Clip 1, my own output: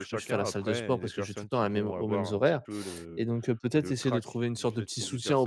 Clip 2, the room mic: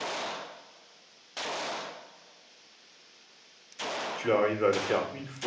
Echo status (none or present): none